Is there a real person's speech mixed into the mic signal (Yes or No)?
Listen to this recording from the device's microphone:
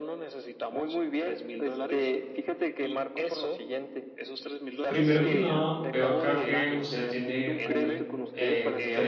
Yes